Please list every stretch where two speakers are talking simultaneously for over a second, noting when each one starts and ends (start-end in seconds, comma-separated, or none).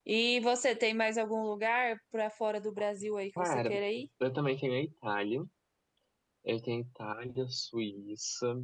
none